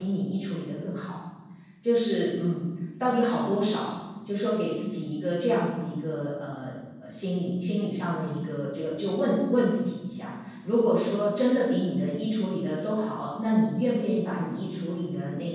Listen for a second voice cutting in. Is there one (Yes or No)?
No